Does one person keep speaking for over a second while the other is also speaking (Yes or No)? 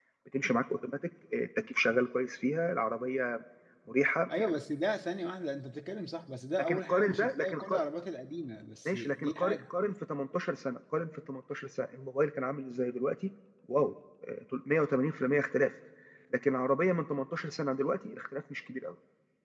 Yes